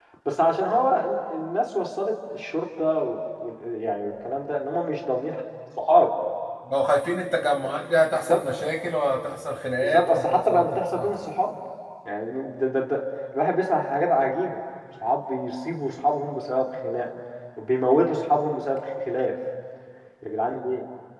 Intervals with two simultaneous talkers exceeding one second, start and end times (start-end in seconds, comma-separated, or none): 9.8-11.1